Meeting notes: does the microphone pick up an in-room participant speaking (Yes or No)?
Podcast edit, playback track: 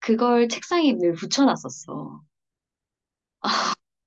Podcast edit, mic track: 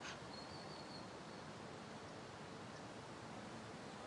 No